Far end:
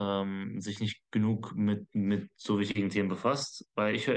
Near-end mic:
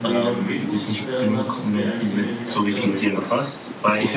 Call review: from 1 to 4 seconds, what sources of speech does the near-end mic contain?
both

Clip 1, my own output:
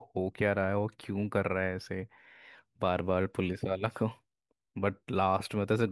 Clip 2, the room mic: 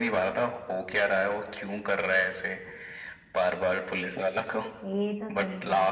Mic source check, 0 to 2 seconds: echo only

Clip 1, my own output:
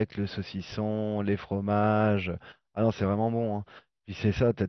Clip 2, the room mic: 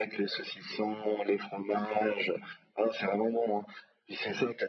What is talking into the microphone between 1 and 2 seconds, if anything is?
echo only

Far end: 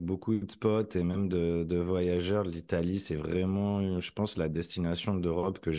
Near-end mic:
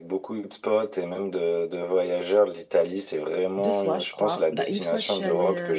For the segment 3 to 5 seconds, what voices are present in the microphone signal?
both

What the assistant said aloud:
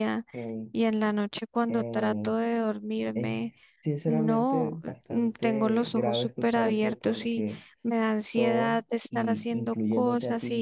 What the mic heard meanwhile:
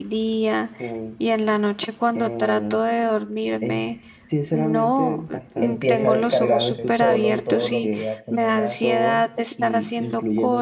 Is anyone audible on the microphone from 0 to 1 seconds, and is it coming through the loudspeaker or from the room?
echo only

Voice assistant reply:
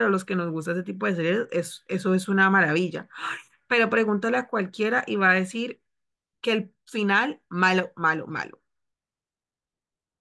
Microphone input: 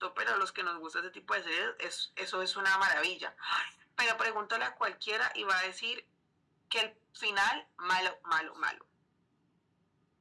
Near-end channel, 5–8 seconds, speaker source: echo only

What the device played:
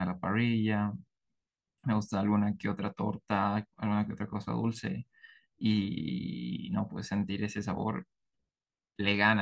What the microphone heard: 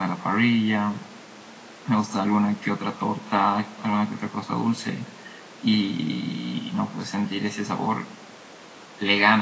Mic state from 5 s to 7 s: echo only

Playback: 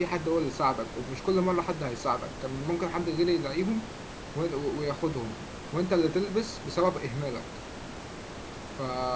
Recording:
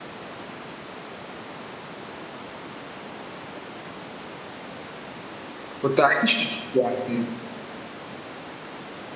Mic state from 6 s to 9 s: user only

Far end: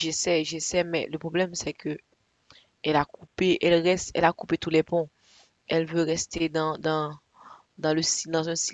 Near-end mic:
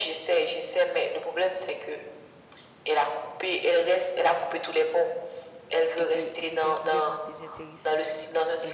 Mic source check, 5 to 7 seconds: both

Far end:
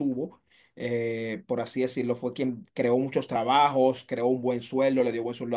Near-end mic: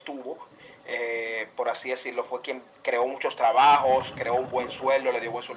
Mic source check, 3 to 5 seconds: echo only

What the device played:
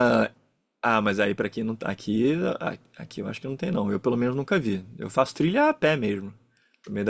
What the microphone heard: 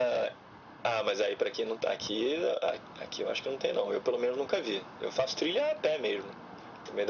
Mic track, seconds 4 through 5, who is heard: echo only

